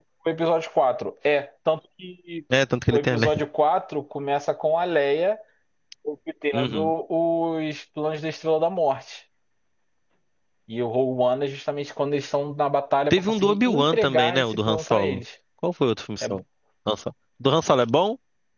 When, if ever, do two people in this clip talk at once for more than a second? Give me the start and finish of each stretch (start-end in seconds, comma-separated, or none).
13.1-15.2